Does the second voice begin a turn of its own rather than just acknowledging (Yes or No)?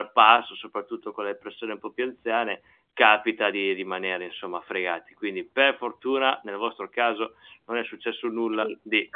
Yes